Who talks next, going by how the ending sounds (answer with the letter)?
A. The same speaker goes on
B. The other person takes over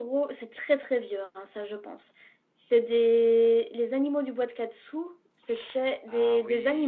B